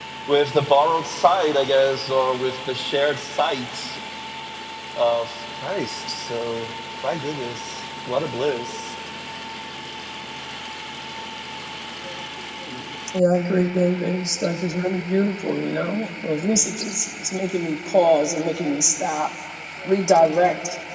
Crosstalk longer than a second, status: none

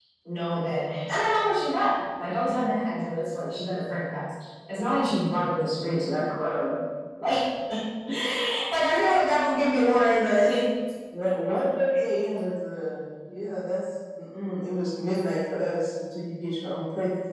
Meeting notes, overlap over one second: none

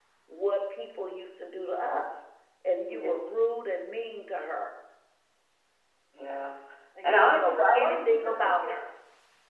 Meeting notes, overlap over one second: present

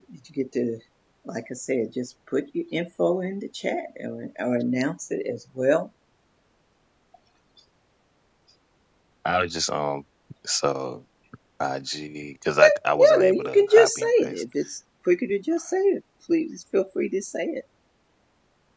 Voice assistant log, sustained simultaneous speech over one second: present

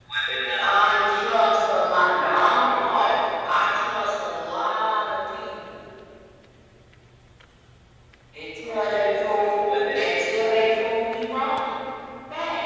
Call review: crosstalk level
present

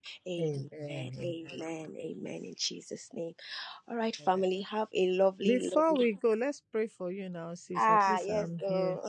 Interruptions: present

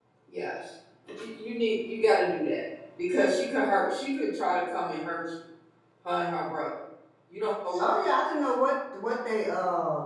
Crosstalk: none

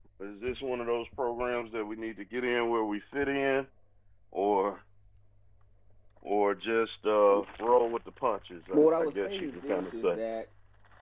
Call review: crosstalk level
present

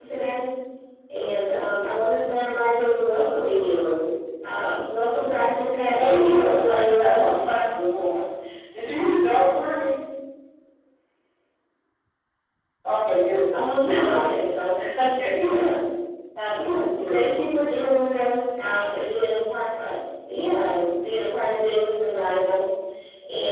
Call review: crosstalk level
present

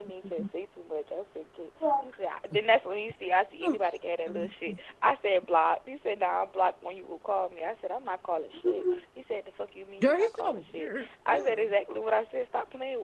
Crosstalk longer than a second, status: present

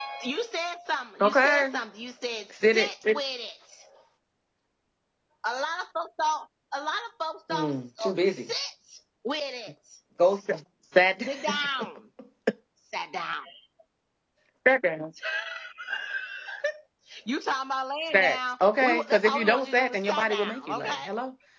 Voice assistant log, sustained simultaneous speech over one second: present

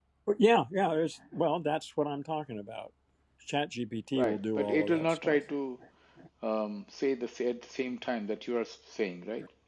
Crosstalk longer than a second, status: present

